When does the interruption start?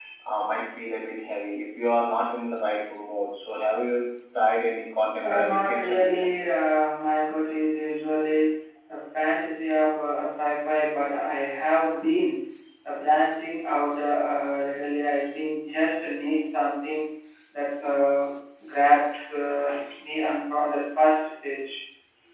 5.2 s

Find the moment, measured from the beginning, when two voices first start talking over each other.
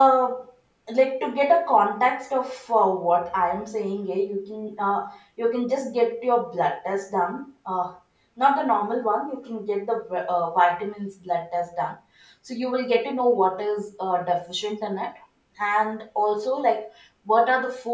none

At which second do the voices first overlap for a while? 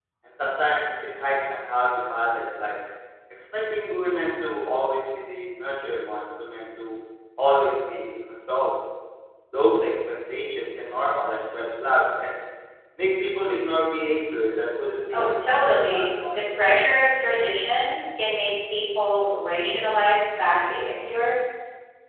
15.1 s

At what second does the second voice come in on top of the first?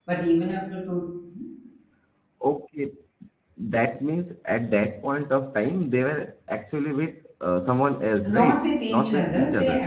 8.2 s

